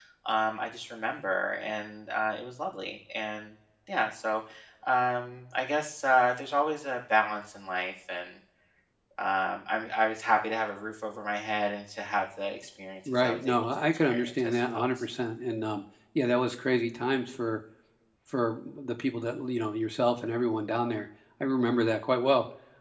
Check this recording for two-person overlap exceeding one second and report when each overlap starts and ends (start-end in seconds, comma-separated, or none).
13.2-14.9